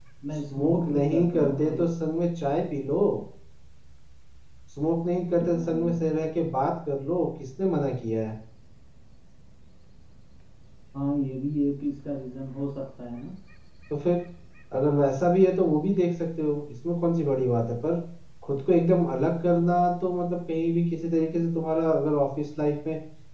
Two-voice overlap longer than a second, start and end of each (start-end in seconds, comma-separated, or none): 0.5-1.9